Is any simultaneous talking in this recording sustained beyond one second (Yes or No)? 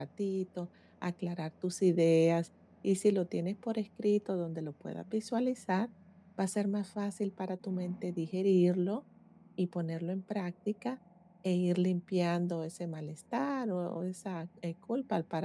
No